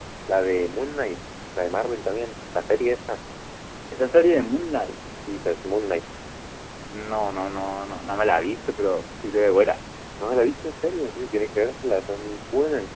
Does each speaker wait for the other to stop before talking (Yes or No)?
Yes